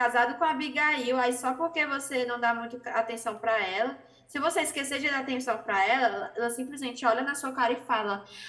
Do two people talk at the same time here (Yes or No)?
No